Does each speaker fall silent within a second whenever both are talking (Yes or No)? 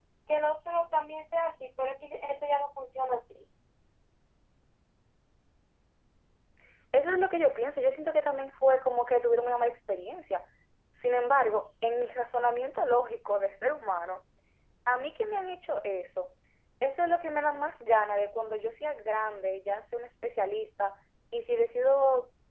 Yes